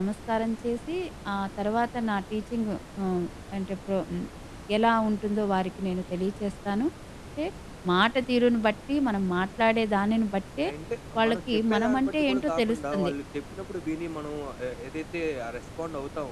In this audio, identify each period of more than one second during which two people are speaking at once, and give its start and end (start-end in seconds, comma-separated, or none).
11.2-13.1